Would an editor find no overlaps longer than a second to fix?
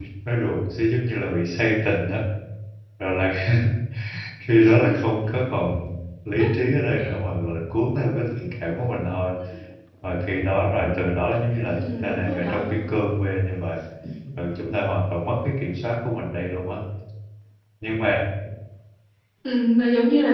No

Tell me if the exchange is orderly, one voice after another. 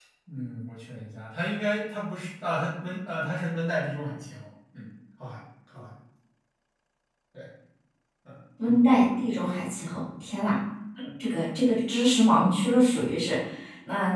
Yes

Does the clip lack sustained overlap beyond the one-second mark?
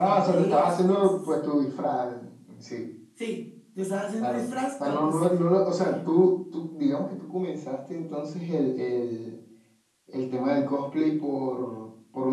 No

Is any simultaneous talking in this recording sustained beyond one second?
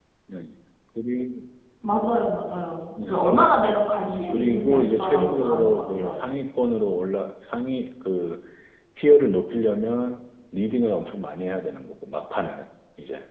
Yes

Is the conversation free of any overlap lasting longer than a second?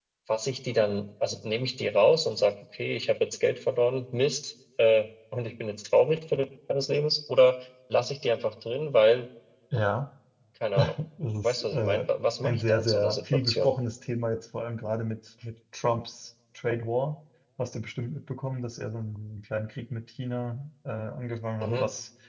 No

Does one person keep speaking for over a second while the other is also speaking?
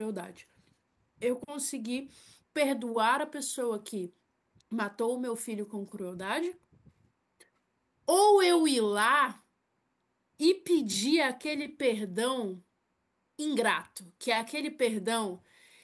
No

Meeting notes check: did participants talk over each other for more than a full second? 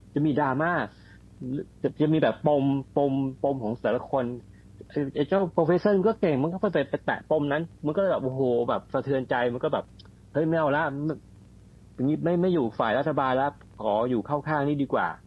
No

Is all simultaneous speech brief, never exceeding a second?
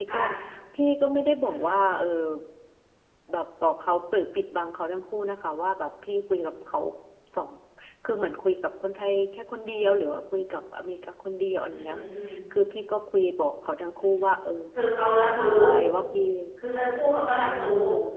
Yes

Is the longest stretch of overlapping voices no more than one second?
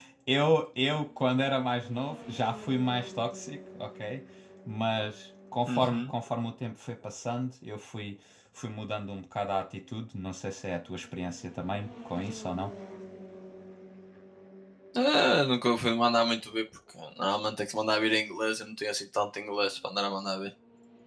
Yes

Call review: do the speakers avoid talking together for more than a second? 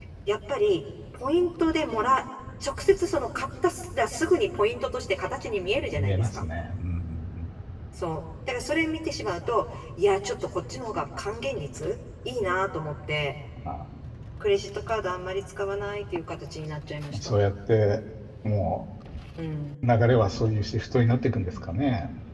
Yes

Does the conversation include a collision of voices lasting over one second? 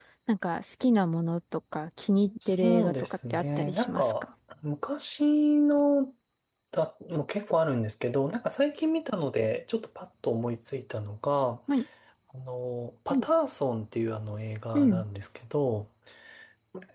Yes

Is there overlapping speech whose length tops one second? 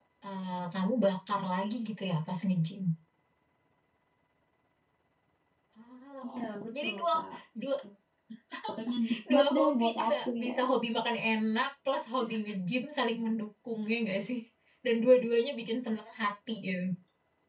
Yes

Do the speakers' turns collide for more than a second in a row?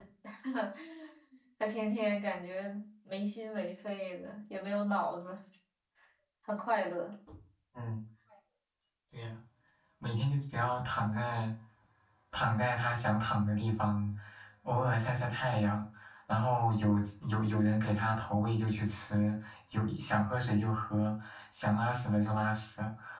No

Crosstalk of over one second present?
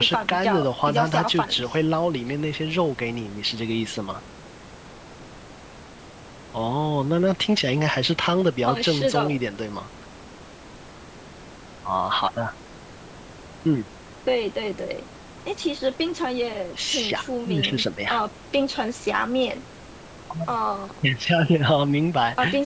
Yes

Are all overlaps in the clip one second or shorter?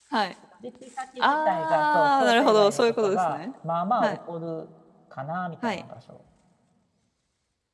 No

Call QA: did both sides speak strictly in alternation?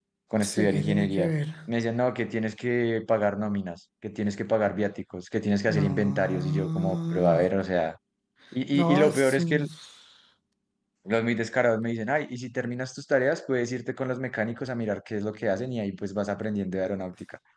No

